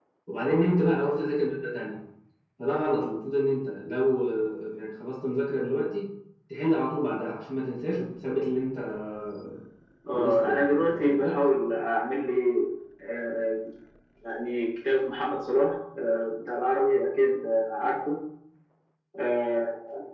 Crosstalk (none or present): present